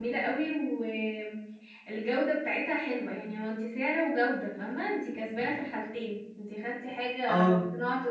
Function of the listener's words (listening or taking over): listening